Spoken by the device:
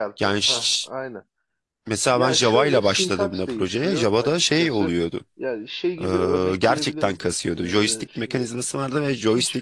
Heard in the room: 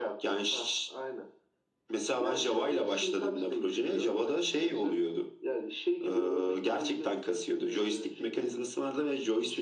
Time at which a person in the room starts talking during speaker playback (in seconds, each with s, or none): none